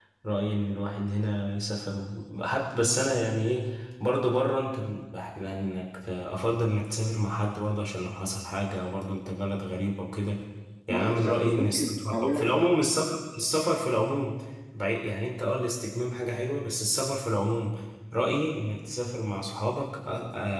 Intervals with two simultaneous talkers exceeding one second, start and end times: 10.9-12.4

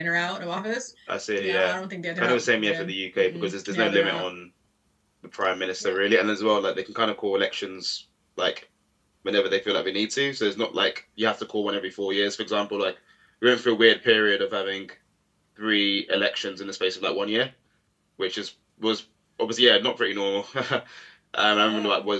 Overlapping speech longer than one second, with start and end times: 2.2-4.2

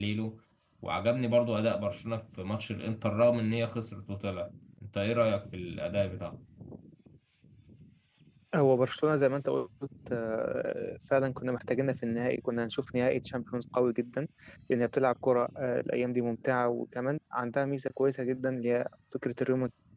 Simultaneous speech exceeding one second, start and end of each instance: none

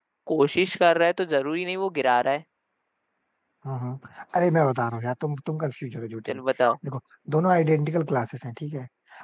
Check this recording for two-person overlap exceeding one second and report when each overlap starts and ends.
none

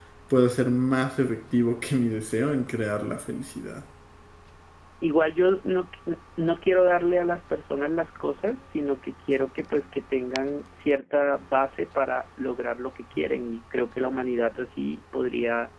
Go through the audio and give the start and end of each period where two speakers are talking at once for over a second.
none

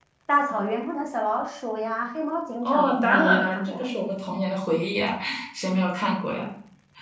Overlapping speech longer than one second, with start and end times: 2.6-3.8

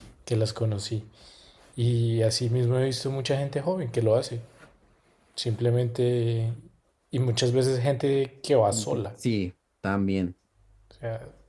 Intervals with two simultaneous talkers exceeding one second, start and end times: none

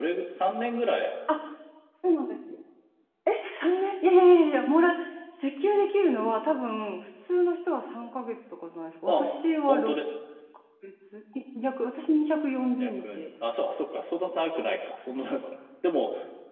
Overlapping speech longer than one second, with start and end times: none

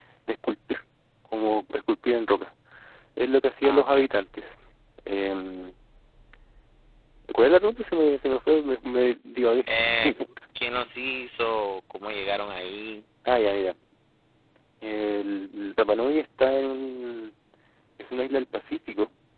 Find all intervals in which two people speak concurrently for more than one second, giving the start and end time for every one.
none

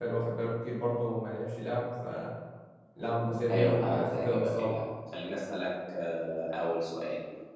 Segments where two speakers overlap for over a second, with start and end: 3.5-4.8

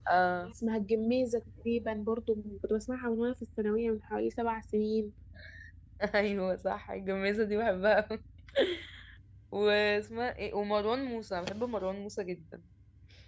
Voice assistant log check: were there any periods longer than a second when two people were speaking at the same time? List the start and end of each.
none

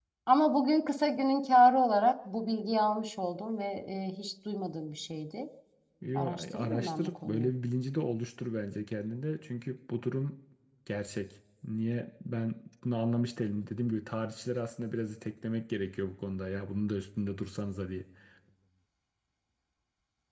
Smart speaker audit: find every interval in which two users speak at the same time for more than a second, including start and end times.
6.1-7.5

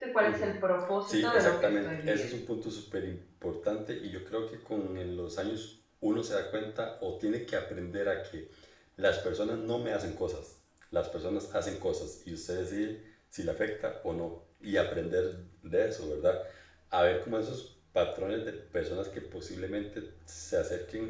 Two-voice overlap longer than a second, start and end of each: 1.1-2.3

